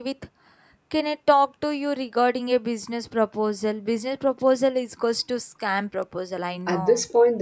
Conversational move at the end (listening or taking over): taking over